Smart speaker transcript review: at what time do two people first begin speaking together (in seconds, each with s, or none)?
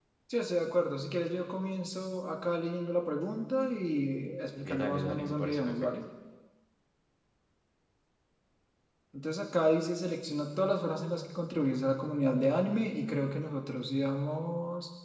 4.6 s